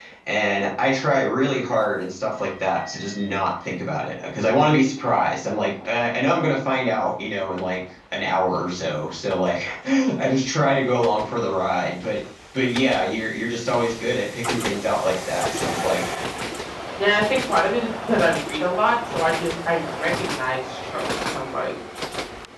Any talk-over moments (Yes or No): No